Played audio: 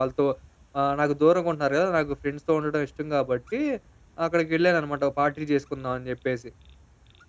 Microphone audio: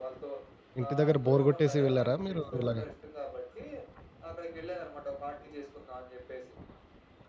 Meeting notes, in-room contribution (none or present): present